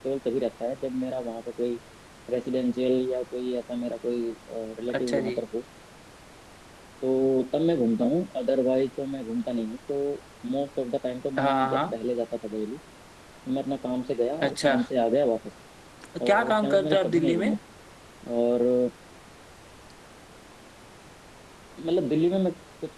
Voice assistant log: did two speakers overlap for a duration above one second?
Yes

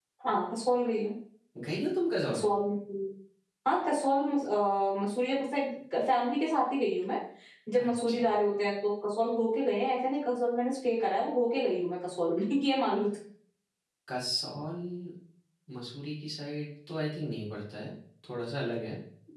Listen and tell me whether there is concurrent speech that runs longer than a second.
No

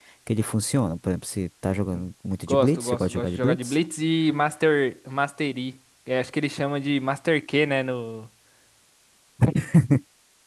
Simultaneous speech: Yes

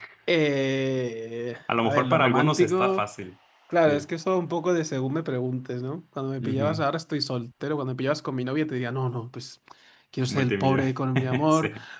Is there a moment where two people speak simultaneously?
Yes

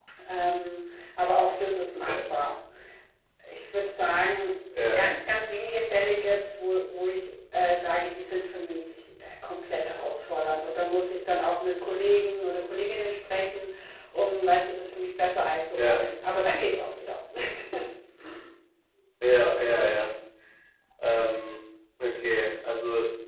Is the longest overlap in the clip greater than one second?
No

